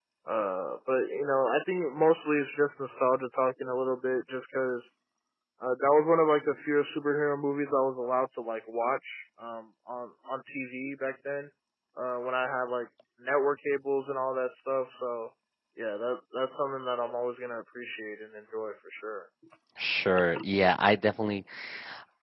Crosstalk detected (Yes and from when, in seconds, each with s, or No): No